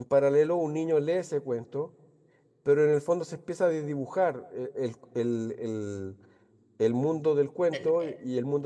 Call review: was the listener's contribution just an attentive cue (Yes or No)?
Yes